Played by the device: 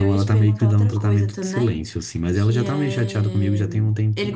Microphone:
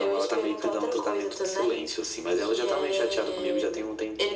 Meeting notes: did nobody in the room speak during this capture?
Yes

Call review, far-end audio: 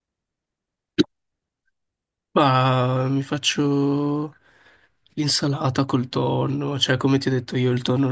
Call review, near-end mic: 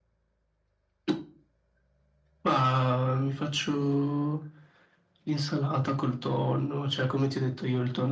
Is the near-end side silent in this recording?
Yes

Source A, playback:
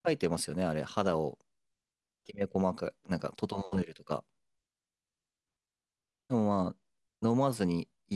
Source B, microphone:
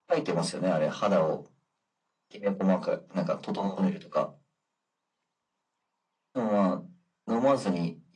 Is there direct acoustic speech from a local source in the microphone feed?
No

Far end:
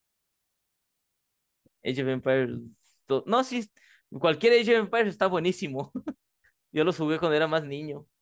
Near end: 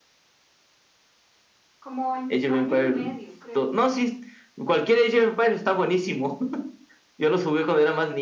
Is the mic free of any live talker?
No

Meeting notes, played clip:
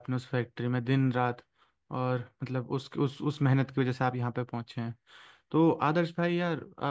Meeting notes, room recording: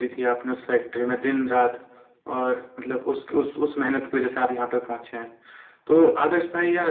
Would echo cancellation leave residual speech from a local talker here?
No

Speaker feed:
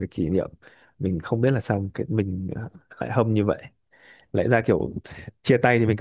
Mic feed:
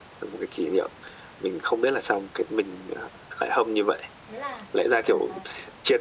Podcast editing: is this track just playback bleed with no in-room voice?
No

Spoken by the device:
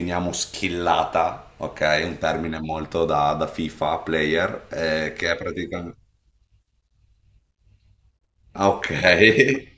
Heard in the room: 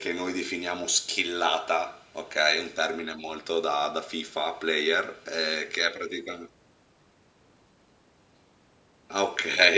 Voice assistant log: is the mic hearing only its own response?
Yes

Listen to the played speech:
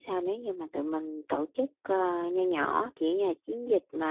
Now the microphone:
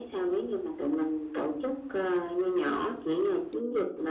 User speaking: No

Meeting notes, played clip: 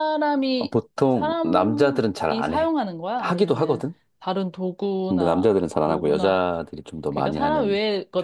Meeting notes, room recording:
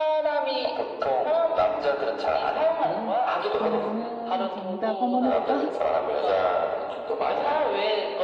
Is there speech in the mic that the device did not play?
Yes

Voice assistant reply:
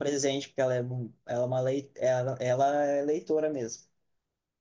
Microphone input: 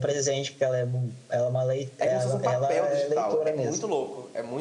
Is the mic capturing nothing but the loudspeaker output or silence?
No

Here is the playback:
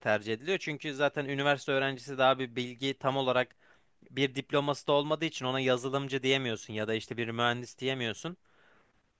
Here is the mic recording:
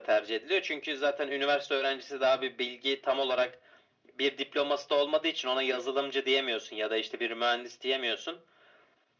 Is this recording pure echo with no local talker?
Yes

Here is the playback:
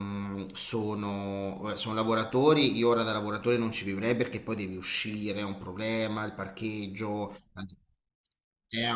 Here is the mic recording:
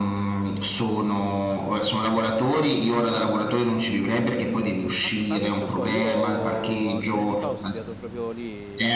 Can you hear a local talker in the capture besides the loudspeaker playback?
Yes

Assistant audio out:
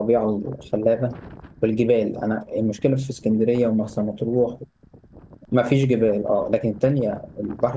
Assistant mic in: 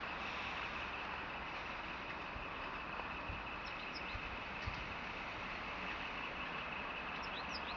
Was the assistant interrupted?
No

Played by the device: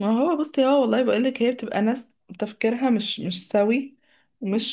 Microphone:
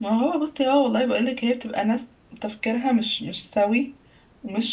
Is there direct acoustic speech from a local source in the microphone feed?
No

